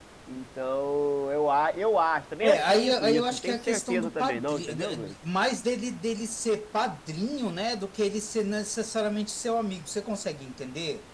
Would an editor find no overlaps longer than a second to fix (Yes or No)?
No